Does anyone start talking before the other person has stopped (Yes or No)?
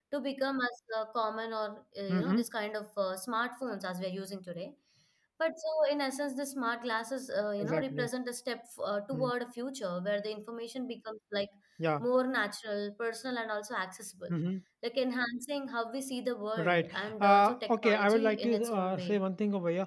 Yes